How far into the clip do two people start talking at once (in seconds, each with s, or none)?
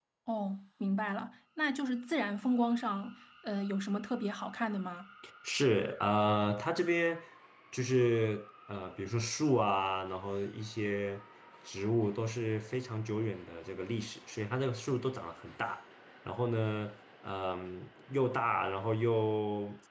none